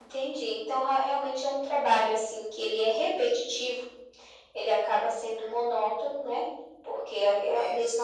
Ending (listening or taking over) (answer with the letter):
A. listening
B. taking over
A